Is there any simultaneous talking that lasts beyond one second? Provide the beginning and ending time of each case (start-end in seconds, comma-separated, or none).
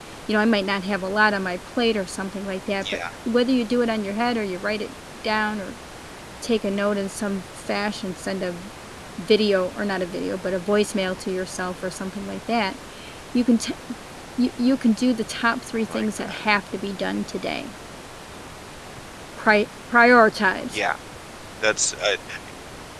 none